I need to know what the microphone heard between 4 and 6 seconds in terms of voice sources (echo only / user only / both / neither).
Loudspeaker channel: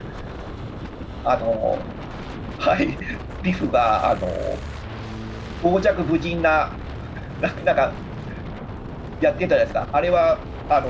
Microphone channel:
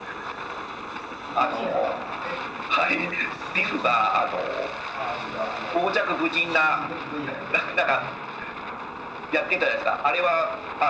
both